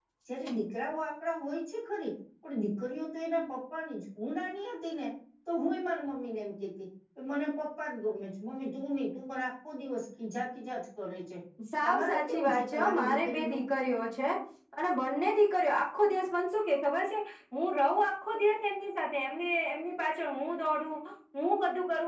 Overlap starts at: 11.8 s

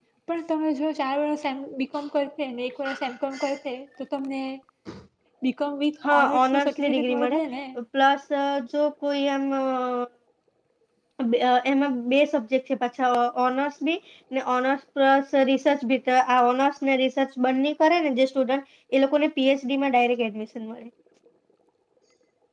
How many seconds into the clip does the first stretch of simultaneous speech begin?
6.0 s

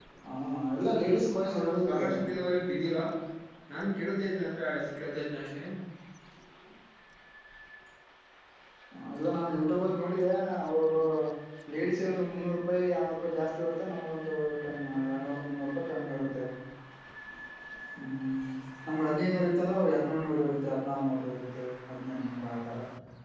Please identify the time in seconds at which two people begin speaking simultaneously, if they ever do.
0.8 s

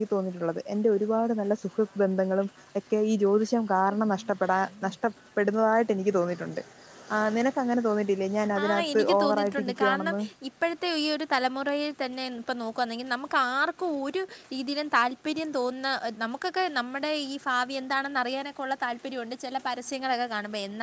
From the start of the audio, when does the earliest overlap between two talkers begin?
8.6 s

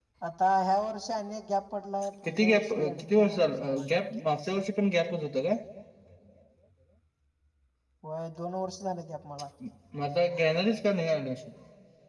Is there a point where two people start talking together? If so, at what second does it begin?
2.3 s

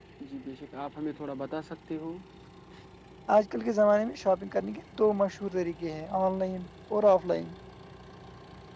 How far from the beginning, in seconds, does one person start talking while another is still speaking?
none

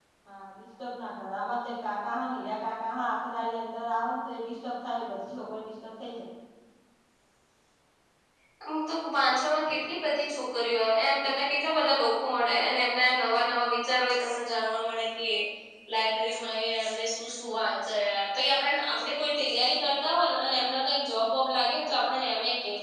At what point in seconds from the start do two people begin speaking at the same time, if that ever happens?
none

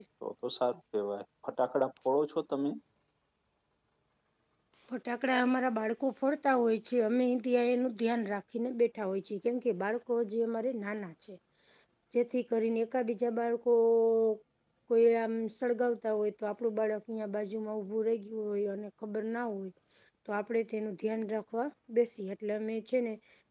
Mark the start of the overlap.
none

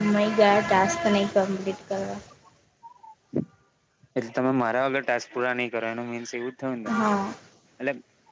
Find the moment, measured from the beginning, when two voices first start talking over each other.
none

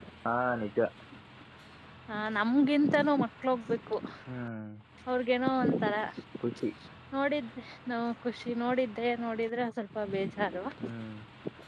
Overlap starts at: none

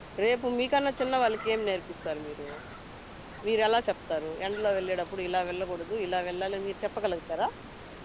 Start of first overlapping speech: none

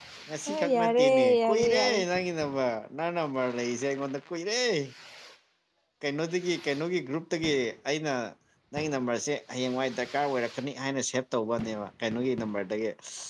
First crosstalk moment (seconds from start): 0.5 s

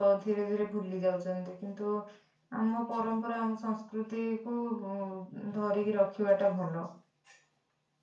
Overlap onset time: none

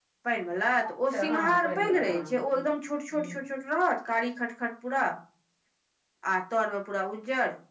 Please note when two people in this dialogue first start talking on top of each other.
1.1 s

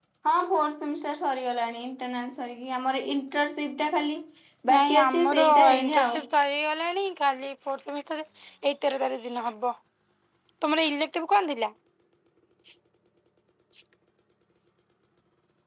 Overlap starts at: 4.7 s

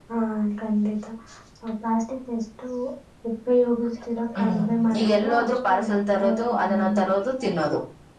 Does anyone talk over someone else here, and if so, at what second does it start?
4.3 s

